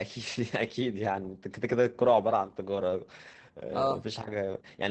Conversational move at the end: listening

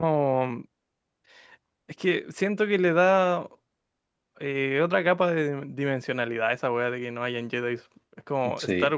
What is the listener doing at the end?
listening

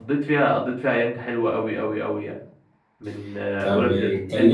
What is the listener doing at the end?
taking over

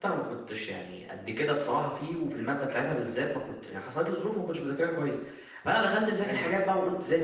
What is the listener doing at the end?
listening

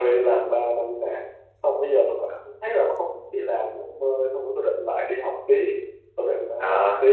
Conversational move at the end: taking over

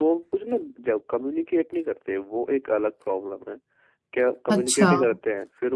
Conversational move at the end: listening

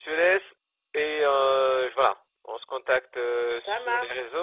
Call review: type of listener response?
listening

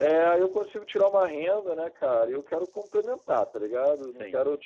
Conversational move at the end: listening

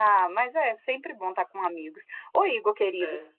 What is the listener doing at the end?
listening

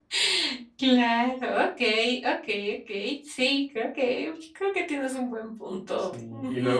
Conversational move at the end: taking over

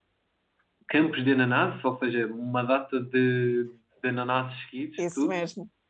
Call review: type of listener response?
taking over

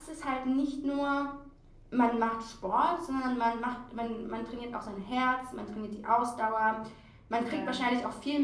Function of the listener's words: listening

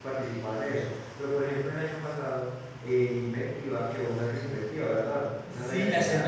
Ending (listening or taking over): taking over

